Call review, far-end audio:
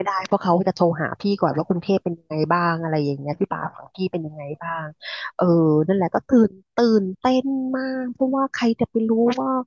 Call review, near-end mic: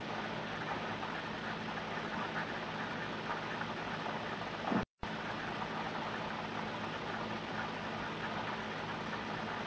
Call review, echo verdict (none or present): none